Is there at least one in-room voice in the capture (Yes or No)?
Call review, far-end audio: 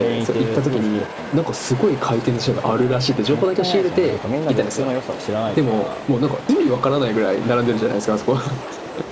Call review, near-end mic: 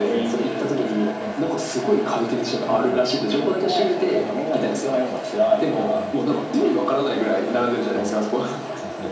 Yes